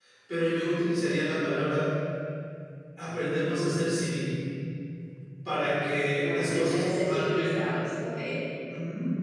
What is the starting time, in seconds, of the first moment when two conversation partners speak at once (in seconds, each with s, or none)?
6.2 s